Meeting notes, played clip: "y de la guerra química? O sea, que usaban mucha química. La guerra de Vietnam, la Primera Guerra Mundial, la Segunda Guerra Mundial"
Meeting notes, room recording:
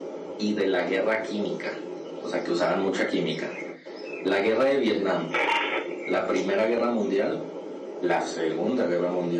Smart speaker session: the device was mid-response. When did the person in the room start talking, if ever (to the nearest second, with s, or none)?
none